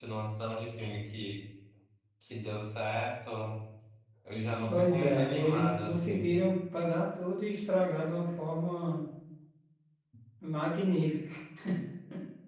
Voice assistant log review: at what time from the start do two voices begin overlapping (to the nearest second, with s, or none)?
5 s